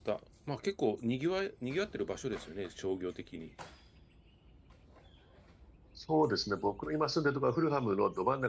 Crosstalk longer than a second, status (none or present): none